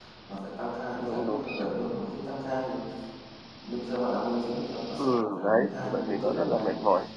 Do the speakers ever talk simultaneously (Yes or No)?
Yes